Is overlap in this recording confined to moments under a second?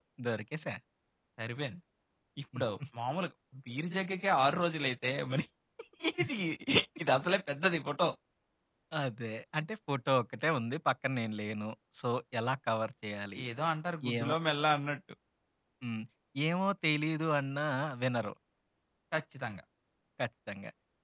Yes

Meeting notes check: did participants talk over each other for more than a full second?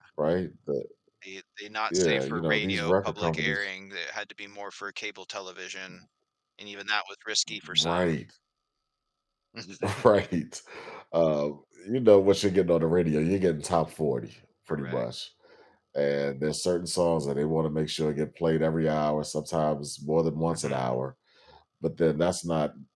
Yes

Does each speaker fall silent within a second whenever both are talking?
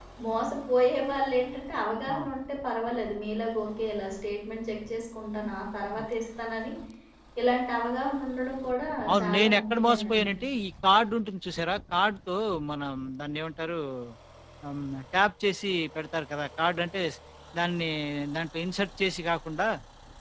No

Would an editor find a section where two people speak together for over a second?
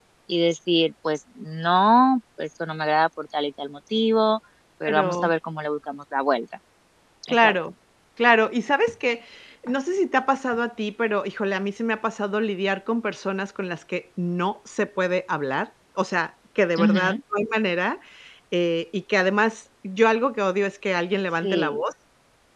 No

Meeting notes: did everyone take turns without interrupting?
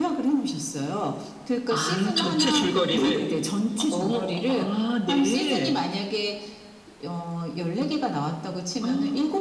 No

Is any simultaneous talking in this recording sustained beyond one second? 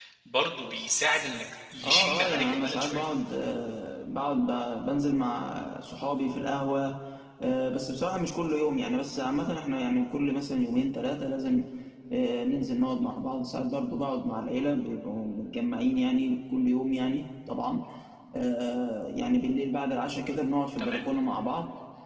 Yes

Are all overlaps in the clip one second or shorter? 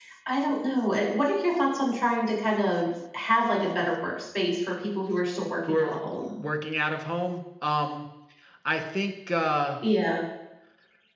Yes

